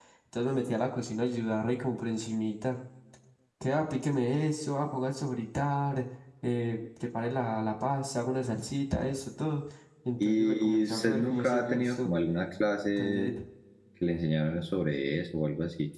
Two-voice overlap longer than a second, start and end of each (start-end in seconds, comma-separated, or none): 10.2-12.1